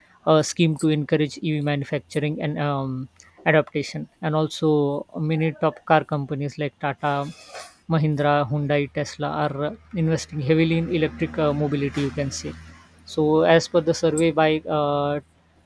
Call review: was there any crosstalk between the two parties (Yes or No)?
No